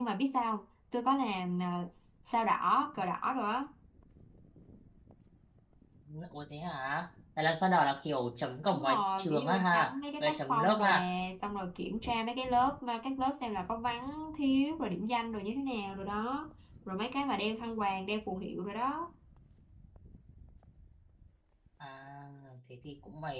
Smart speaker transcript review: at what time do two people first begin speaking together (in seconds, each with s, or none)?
8.7 s